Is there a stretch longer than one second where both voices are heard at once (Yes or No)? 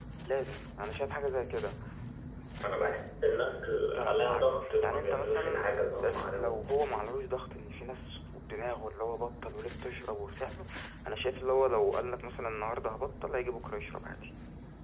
Yes